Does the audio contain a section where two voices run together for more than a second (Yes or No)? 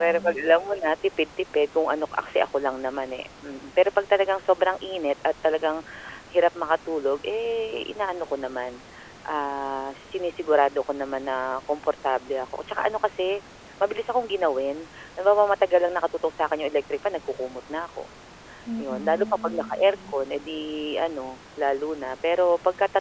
Yes